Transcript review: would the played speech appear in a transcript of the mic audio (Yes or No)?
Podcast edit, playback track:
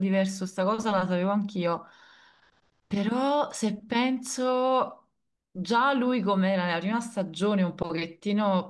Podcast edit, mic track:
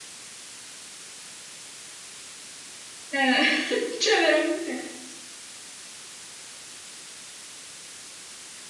No